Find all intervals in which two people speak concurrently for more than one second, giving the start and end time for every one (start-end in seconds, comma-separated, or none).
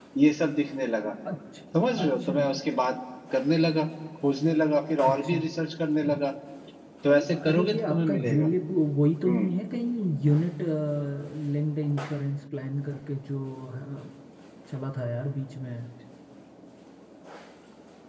7.1-8.5